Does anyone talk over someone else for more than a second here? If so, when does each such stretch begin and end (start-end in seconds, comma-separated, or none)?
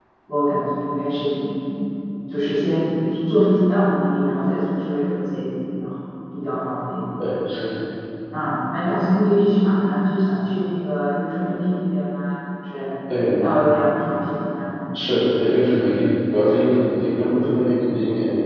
none